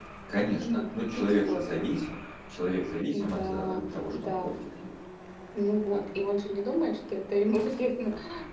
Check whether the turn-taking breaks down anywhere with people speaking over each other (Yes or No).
Yes